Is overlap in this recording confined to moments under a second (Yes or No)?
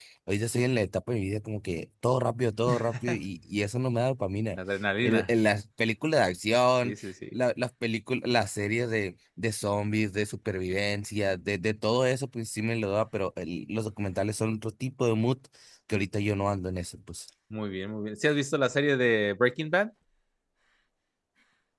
Yes